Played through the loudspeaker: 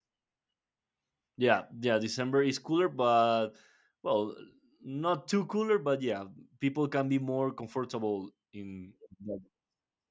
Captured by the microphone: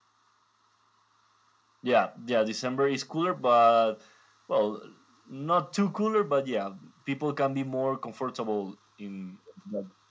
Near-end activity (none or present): none